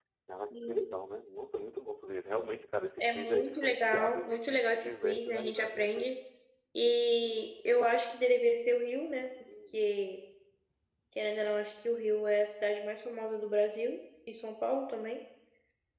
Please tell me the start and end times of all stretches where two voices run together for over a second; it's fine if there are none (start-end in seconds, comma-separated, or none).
3.0-6.2